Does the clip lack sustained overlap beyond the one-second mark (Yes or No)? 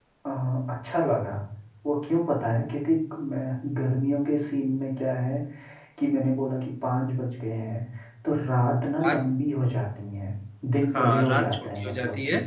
No